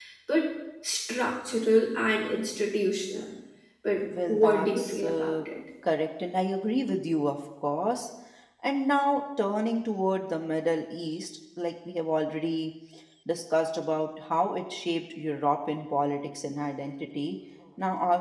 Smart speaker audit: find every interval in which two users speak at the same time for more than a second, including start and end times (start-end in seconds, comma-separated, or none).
4.0-5.4